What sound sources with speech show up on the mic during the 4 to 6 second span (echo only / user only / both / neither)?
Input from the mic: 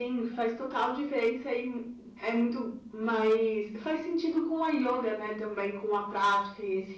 echo only